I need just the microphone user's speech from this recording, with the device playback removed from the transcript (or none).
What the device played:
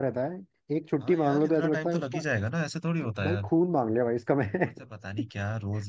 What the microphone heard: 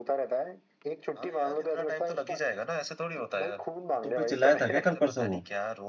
है तुम पे चिल्लाया था क्या कल परसों वो